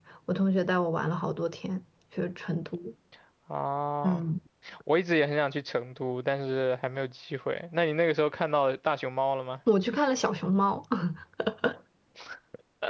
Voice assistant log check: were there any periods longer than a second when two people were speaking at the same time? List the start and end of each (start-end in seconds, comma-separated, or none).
none